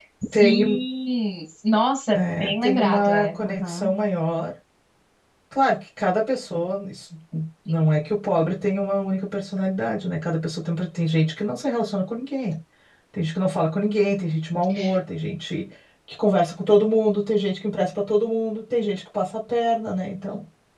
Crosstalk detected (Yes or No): Yes